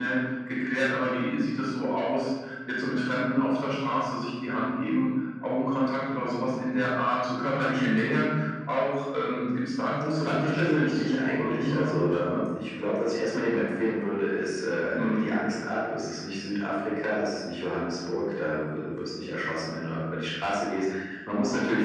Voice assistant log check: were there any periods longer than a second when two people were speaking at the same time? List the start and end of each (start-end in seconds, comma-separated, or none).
10.2-12.4